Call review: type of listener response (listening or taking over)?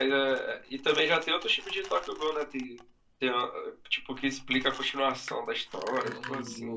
taking over